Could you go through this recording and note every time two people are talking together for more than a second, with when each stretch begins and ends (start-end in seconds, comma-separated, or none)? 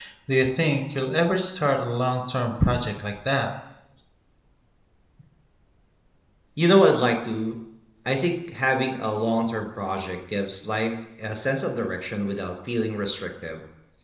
none